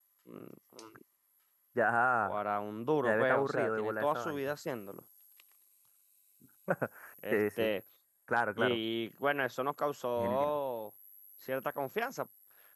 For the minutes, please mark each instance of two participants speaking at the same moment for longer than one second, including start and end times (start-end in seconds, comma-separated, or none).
3.0-4.4